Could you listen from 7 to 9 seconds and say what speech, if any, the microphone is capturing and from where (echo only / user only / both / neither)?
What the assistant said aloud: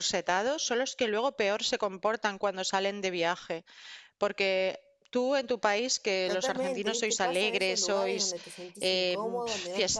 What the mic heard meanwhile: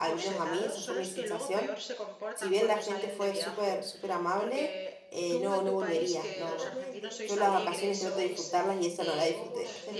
both